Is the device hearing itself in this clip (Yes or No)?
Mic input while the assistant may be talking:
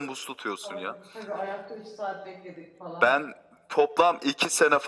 Yes